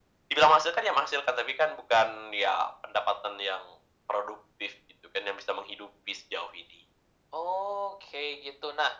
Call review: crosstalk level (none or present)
none